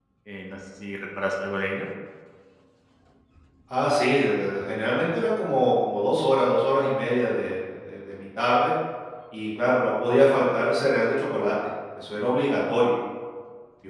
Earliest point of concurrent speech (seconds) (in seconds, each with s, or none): none